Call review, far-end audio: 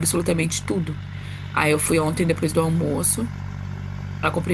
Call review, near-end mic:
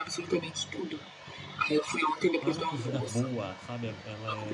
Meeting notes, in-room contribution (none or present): present